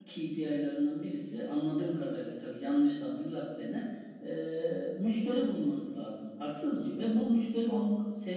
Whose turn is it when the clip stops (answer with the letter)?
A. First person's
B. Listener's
A